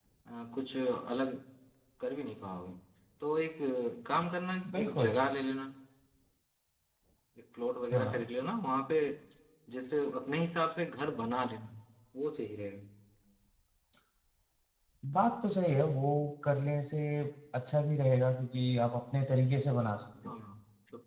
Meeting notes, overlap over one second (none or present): none